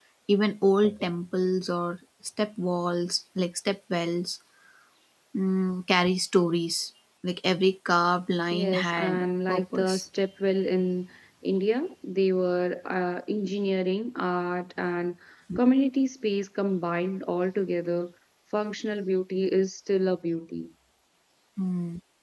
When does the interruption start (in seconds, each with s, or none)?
8.5 s